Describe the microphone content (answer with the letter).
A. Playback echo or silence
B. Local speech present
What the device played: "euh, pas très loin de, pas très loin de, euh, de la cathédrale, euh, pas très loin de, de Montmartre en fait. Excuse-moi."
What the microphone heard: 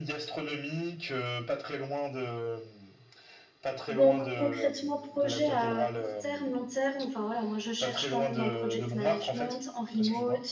B